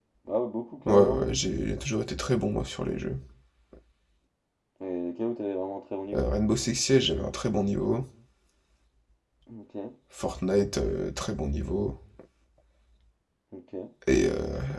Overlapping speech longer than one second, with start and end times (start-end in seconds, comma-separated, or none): none